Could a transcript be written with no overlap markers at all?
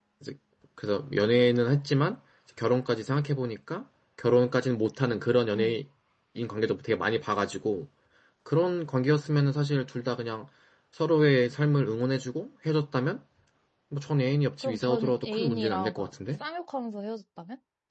No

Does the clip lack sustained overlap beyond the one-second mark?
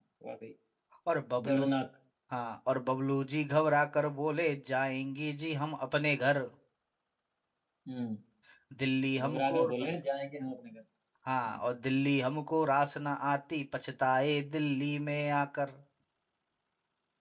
Yes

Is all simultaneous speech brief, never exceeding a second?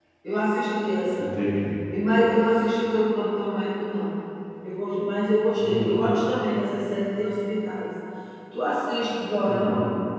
Yes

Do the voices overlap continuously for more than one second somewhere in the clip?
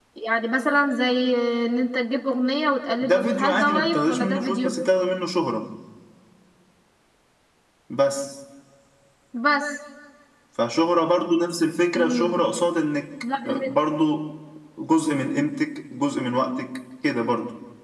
Yes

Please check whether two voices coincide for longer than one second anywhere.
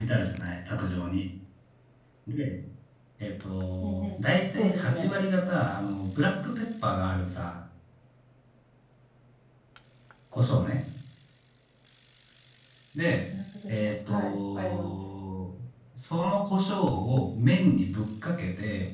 Yes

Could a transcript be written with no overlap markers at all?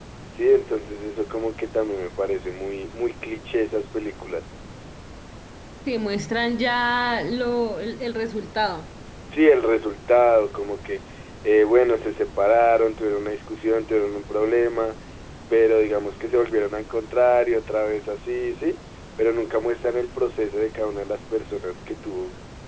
Yes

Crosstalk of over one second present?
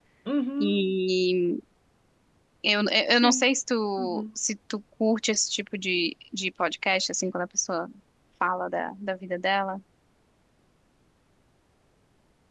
No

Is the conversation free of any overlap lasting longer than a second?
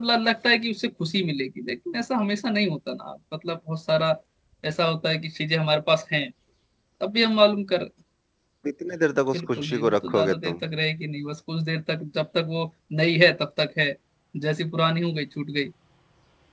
No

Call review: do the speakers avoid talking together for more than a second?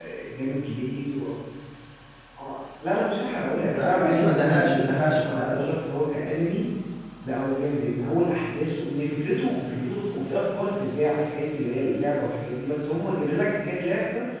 No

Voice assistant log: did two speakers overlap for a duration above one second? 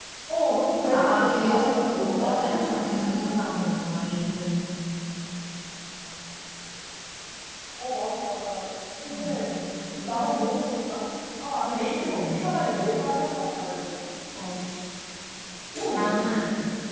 Yes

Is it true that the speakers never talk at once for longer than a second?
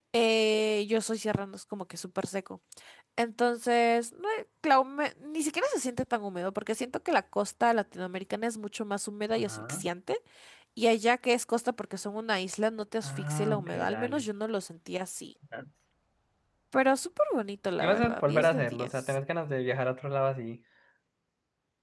No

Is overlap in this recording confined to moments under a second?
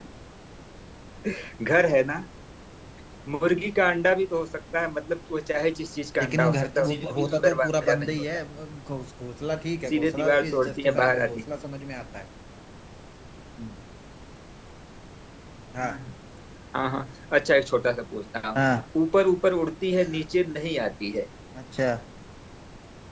No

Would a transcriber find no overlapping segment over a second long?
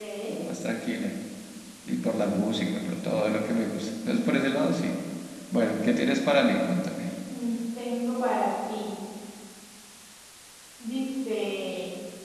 Yes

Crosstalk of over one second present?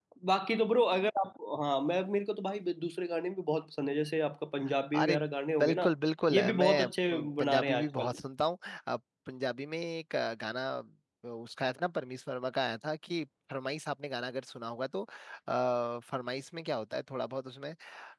Yes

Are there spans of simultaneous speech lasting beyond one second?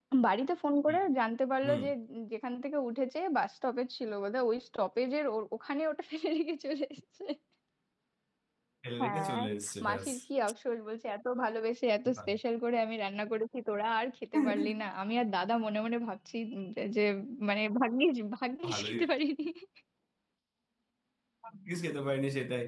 No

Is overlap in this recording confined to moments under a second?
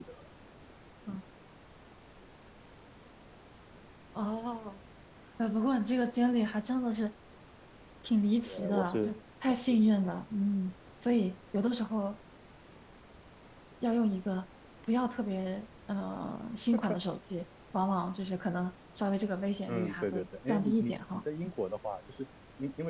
No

